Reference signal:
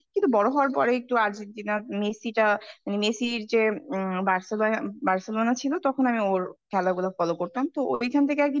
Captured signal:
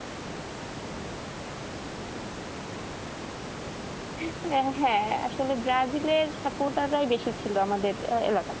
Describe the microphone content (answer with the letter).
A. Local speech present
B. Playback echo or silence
A